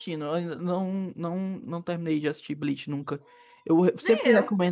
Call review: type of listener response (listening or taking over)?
listening